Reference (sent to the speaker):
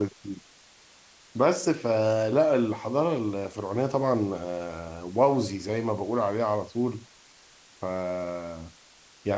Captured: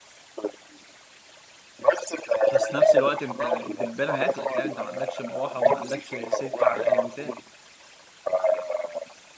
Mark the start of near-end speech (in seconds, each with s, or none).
2.5 s